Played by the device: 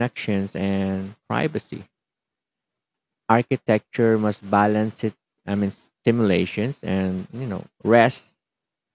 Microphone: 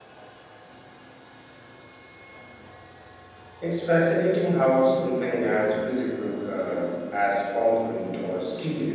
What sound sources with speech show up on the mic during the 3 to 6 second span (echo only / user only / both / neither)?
user only